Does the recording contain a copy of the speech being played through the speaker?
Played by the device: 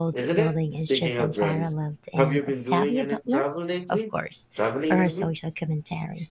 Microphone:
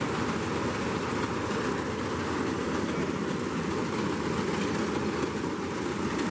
No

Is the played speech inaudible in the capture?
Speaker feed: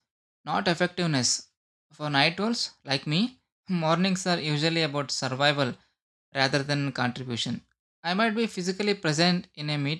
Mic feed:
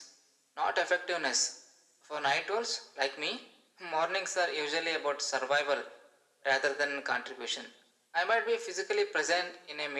No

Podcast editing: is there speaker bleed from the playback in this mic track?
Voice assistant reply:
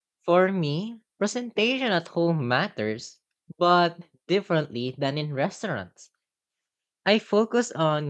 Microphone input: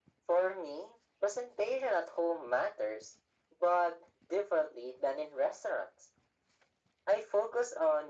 Yes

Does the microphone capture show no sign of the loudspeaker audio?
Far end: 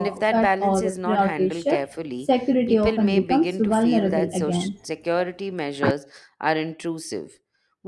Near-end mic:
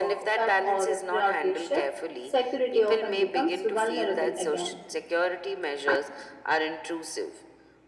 No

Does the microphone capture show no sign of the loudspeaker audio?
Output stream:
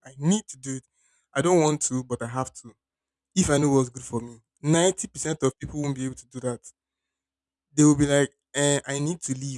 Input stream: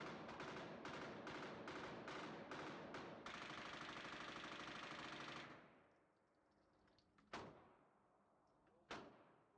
Yes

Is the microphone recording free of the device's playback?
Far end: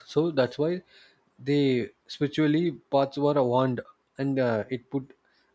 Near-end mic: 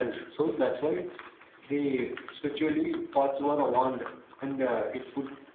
No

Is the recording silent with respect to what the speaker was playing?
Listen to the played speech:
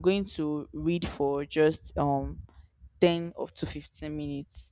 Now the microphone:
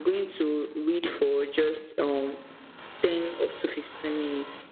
No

